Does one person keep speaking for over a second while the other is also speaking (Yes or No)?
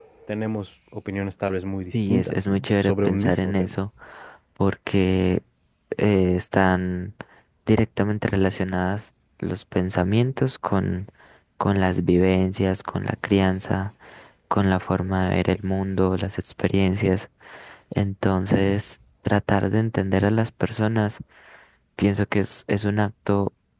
Yes